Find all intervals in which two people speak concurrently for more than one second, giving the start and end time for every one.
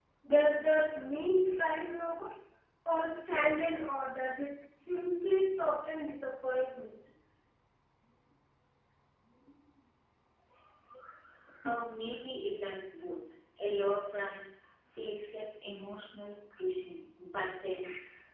none

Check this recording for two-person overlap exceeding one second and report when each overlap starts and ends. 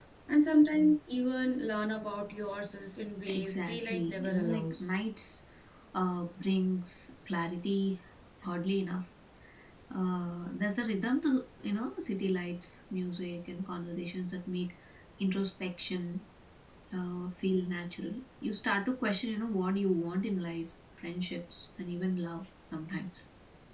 3.3-4.8

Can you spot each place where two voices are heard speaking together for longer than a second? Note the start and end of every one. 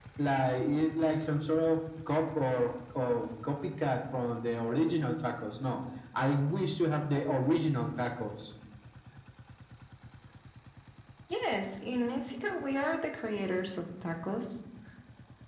none

